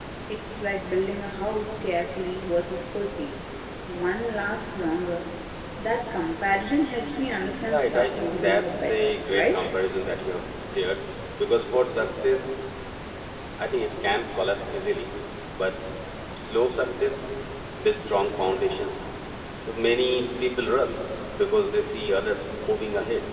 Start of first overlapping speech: 7.7 s

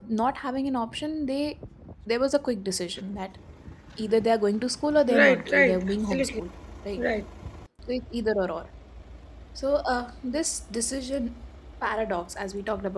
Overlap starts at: 5.1 s

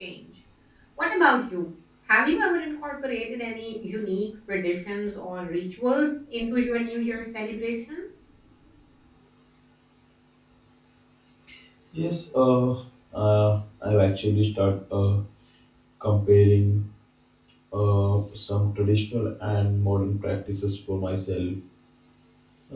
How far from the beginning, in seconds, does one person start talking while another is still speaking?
none

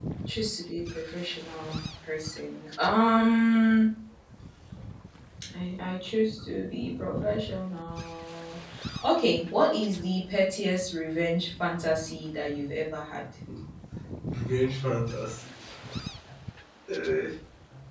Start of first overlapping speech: none

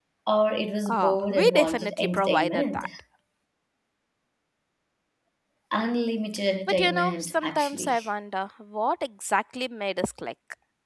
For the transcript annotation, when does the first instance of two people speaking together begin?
0.9 s

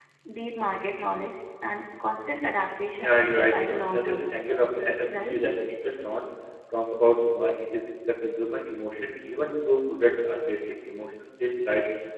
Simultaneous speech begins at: 3.0 s

